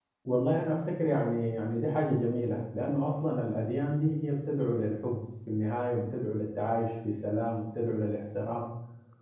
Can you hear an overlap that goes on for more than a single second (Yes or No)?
No